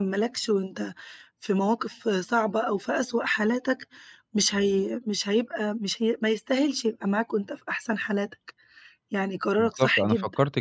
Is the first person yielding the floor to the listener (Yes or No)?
Yes